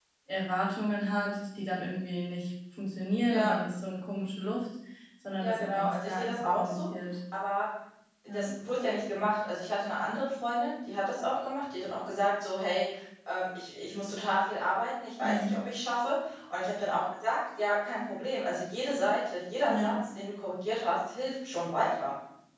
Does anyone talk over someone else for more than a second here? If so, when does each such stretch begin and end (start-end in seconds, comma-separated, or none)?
5.4-6.8